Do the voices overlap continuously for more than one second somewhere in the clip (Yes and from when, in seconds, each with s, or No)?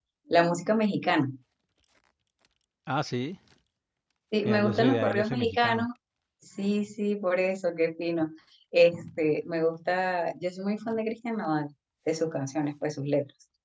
Yes, from 4.4 s